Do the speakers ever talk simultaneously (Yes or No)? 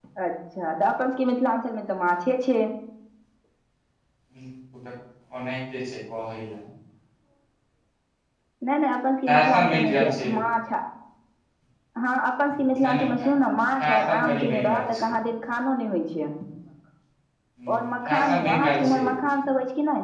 Yes